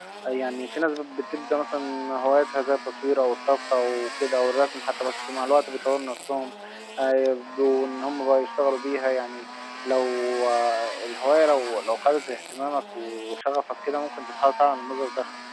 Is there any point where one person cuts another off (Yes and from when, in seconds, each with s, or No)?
No